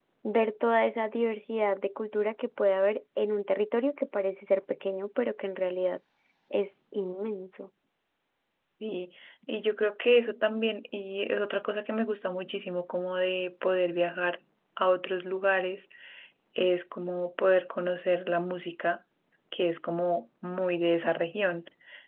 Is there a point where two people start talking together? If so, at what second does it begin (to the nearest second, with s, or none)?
none